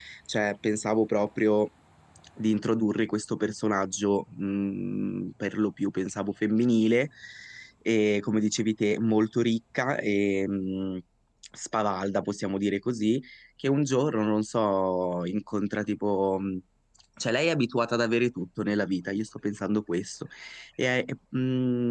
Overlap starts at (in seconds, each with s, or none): none